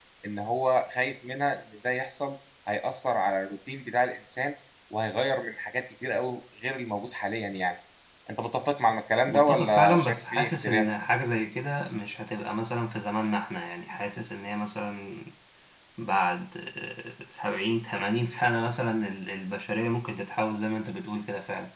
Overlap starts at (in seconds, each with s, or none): 9.3 s